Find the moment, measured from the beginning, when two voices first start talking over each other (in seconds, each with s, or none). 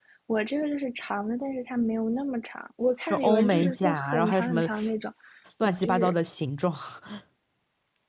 3.1 s